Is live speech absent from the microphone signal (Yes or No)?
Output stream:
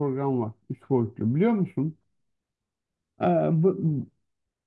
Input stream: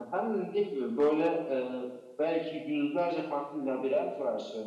No